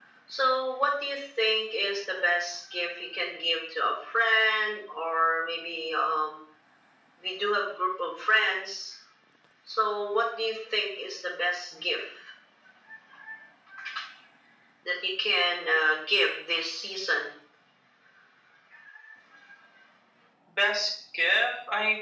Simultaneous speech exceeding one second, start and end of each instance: none

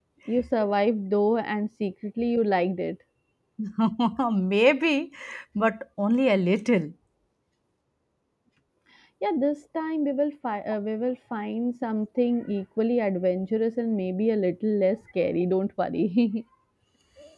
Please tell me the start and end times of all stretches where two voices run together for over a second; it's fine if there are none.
none

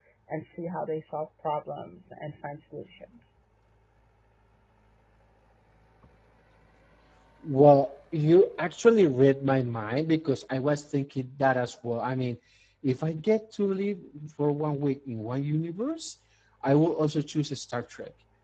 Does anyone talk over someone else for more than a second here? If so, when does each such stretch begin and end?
none

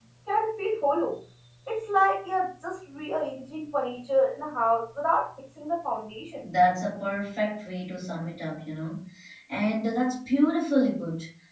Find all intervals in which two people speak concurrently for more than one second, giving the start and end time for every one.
none

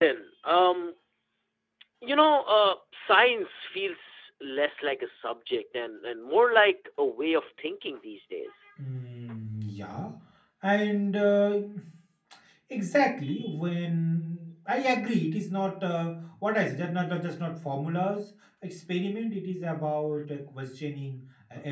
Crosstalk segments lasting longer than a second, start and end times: none

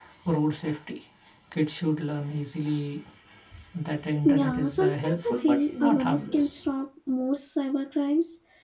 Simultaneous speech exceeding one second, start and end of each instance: 4.2-6.6

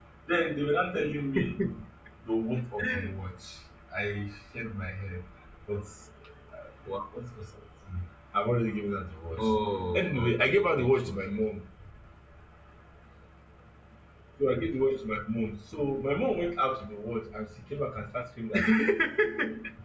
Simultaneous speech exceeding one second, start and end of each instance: 9.9-11.4

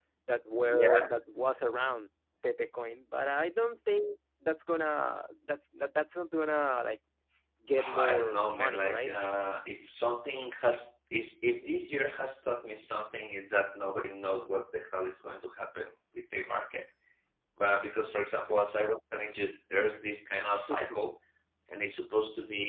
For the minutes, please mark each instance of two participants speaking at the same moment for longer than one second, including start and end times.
7.8-9.2

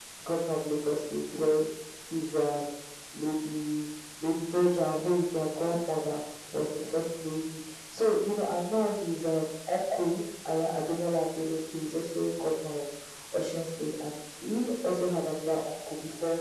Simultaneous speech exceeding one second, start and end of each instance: none

